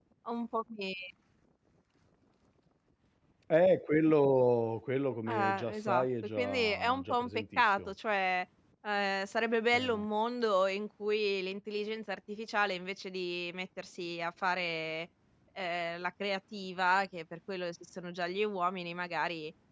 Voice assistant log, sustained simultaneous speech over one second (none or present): present